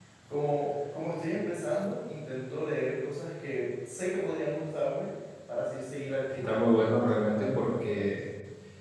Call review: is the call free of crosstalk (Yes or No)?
No